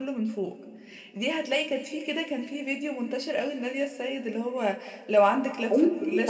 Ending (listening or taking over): taking over